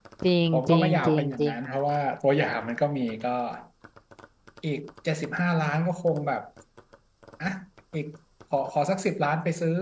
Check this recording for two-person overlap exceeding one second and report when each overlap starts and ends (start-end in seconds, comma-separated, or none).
0.5-1.8